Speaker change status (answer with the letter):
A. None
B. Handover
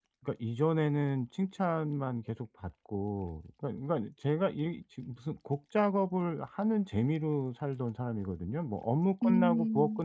A